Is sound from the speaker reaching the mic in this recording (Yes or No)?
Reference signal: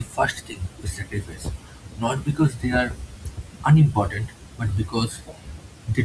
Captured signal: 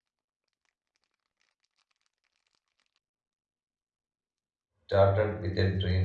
No